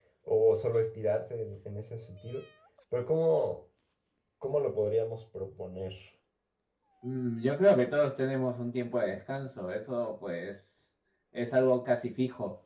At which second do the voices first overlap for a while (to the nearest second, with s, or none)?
none